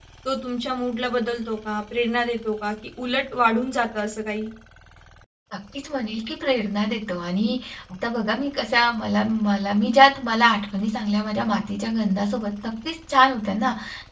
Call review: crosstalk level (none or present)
none